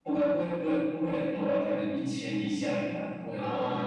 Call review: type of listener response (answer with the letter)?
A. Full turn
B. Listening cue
A